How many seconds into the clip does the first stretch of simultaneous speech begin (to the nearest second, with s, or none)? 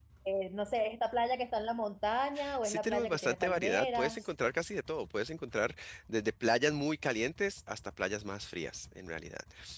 3 s